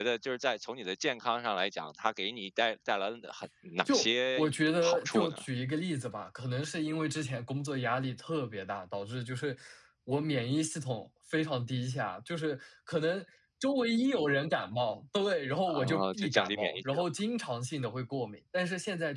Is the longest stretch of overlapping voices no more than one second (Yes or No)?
No